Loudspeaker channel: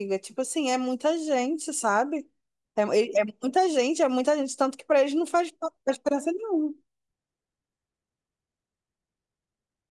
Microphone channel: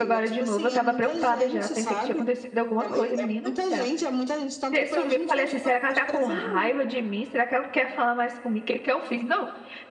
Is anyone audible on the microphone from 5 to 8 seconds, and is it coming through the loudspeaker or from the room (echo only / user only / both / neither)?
both